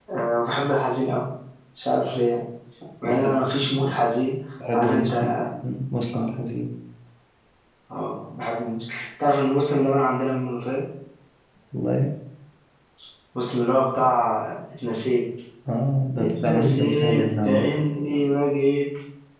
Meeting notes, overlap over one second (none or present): present